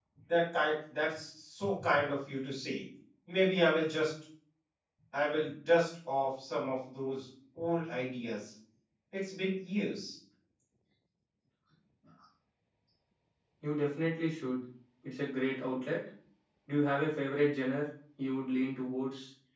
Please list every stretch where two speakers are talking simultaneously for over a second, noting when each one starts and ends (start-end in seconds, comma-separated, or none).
none